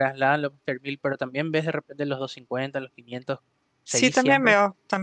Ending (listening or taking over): taking over